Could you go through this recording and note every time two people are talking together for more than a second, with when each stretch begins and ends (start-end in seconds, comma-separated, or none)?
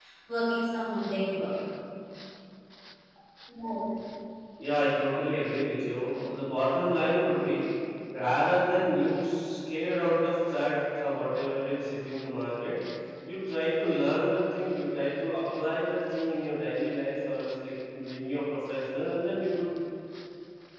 none